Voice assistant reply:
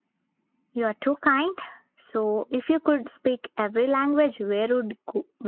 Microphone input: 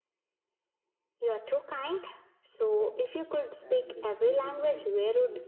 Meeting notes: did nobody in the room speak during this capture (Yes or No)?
No